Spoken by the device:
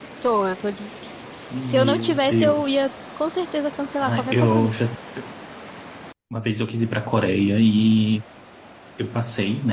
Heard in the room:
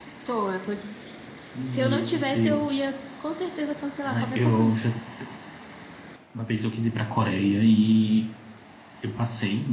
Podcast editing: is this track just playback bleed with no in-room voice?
Yes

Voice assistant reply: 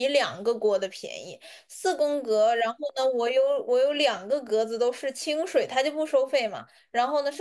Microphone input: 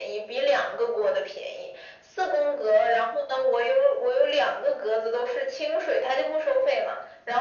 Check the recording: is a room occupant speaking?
No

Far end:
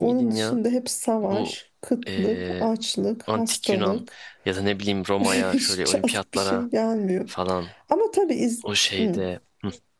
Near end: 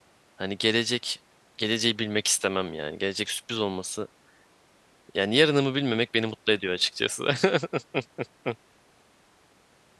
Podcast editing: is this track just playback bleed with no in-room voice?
No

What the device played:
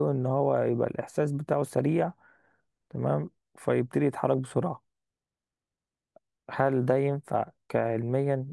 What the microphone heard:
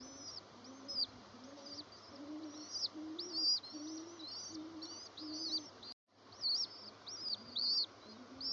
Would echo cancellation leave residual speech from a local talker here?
No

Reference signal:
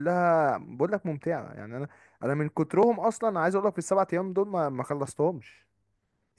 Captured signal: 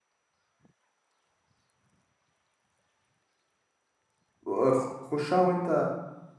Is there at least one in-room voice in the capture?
Yes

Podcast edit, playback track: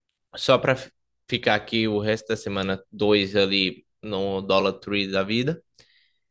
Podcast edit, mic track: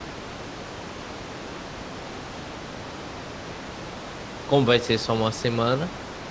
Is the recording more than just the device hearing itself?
Yes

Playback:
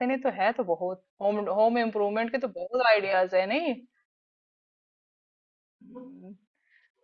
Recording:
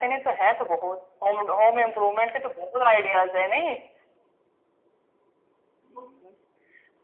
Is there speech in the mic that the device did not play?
No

